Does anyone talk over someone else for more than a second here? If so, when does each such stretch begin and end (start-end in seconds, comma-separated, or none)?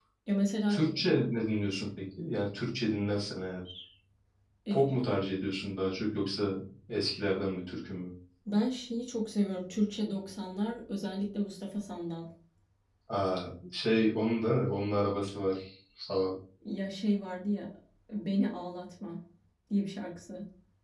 none